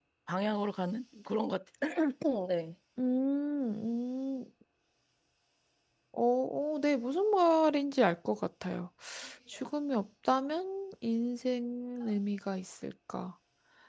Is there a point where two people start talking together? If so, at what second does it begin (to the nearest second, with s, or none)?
none